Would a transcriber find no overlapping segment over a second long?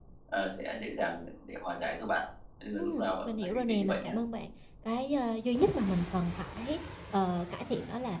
No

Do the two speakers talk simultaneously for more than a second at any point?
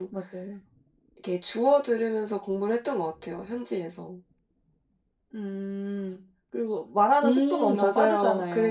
Yes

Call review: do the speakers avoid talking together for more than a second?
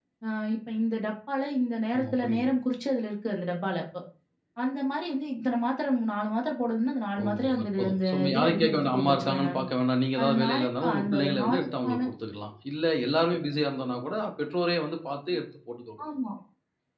No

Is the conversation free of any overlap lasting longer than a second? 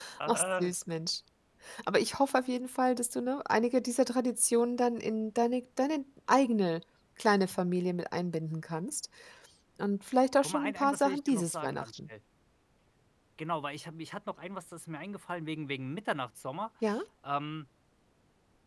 No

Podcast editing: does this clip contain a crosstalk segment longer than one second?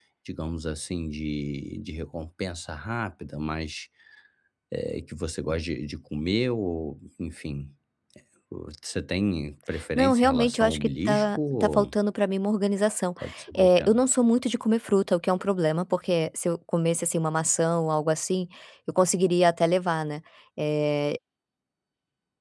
Yes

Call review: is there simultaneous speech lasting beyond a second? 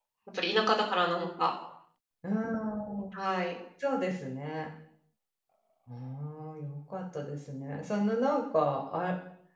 No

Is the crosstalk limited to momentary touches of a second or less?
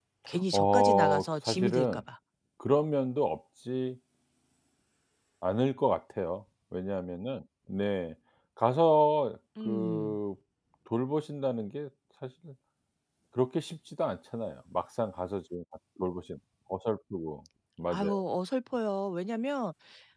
No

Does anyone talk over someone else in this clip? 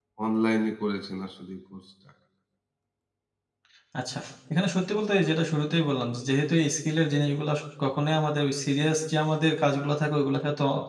No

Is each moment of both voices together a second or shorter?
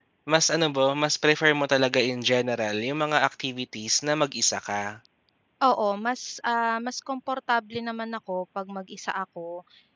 Yes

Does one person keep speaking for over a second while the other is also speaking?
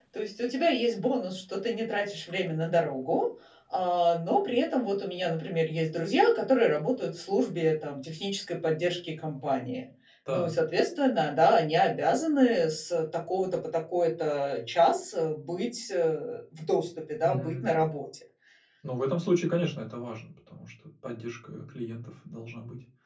No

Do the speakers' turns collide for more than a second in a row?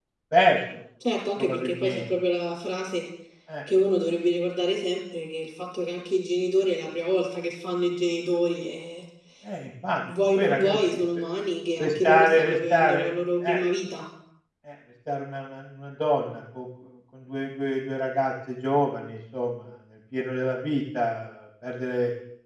Yes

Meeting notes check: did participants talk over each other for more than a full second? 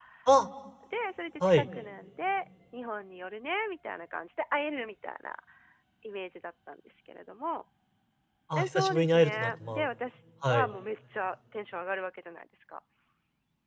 Yes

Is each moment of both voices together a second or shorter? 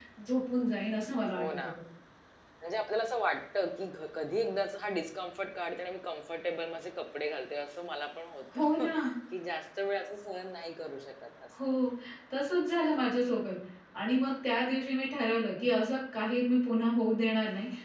Yes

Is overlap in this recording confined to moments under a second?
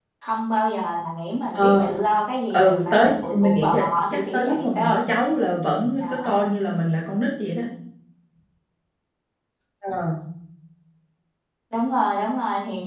No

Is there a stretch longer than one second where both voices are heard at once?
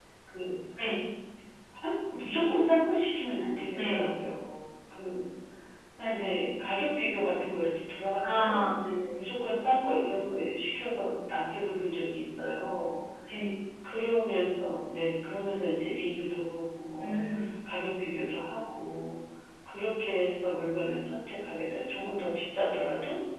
No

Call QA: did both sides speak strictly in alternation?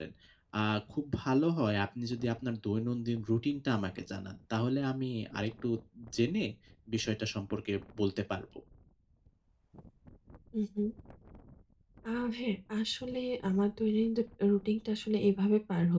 Yes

